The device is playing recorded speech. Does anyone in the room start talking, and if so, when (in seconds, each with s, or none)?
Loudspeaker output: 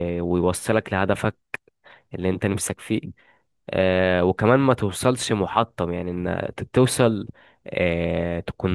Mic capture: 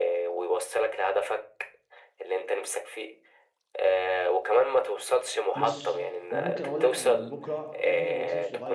5.5 s